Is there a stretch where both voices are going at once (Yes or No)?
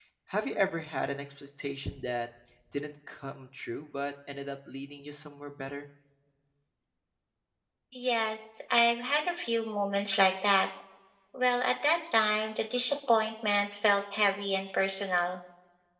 No